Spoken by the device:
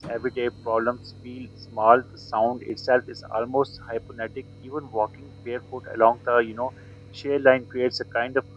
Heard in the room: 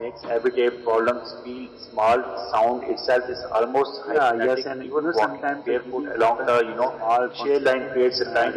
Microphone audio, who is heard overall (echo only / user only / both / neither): both